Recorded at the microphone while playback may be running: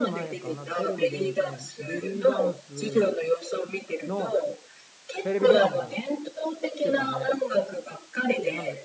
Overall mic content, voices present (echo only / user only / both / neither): both